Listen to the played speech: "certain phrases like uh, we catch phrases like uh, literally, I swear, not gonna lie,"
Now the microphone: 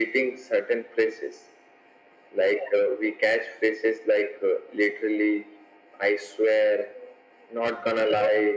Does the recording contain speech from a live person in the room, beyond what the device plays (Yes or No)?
No